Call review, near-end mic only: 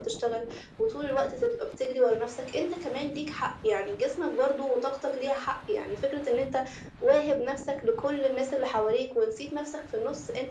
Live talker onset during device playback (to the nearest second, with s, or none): none